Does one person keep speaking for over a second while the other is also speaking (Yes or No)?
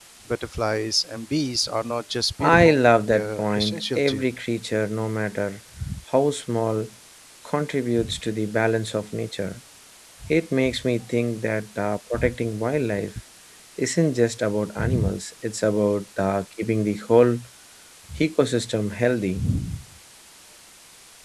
Yes